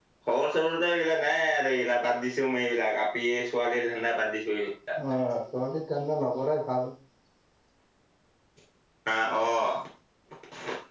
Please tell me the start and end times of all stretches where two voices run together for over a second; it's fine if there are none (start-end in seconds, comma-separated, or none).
none